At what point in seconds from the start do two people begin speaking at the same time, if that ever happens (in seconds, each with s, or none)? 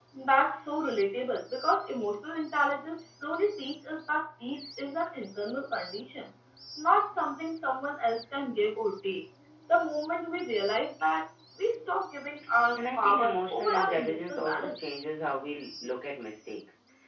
12.8 s